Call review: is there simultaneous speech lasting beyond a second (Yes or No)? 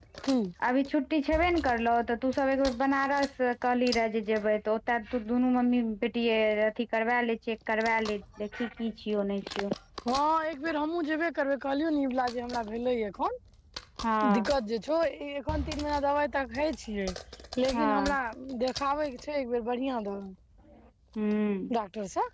No